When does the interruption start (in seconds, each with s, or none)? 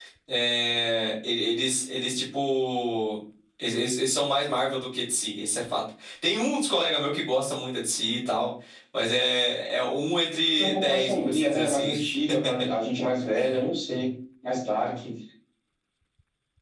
10.5 s